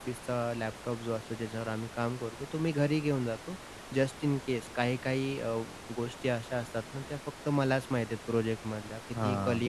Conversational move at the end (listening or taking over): listening